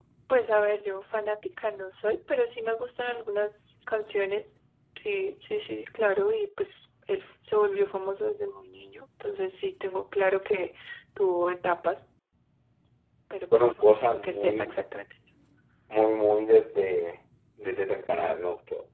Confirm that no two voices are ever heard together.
No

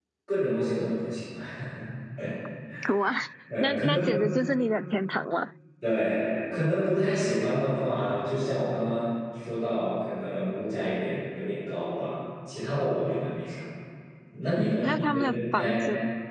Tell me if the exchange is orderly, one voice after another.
No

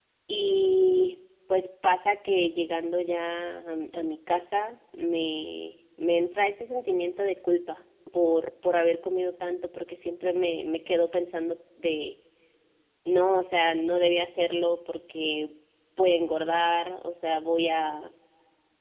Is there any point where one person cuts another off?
No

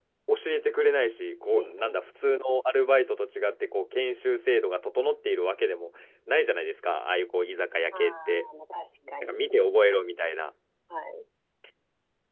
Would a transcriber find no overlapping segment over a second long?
Yes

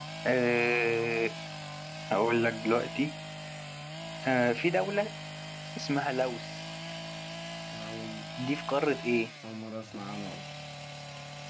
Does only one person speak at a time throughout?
Yes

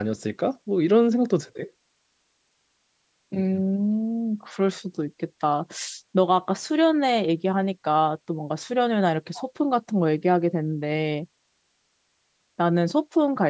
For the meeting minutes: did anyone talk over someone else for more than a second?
No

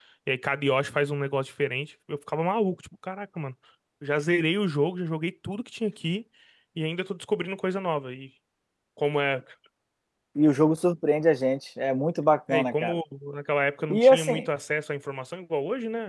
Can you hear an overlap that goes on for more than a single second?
No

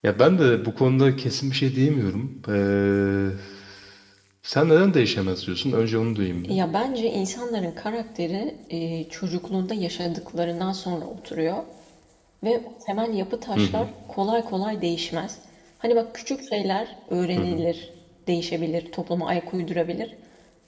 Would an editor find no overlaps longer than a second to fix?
Yes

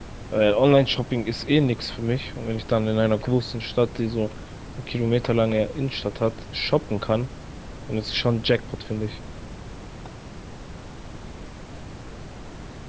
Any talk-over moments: No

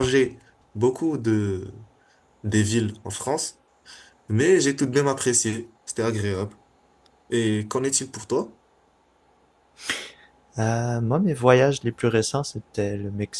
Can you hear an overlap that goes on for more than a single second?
No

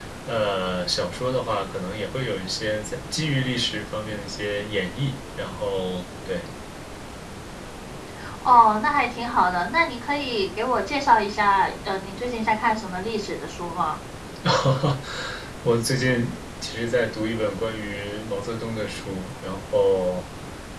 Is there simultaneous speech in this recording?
No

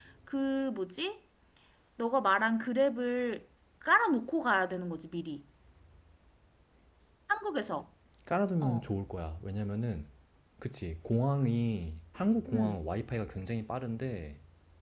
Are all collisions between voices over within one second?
Yes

